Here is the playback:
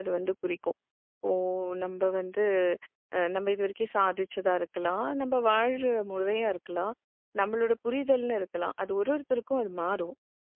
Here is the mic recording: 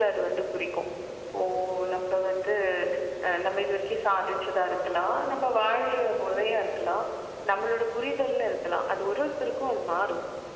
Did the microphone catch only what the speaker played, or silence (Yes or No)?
Yes